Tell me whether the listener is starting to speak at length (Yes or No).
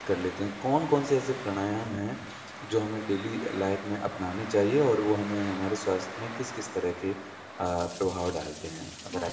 Yes